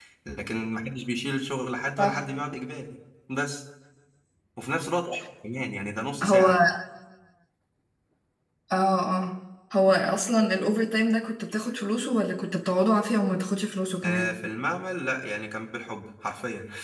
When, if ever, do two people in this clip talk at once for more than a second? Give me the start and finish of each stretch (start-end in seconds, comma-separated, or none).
none